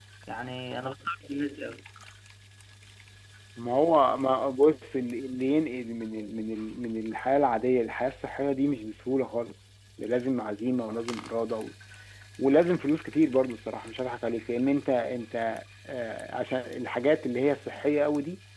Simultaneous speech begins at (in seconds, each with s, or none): none